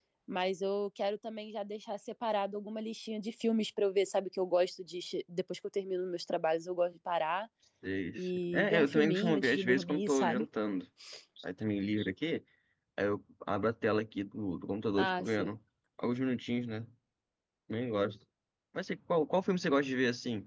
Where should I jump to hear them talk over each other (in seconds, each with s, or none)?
8.2 s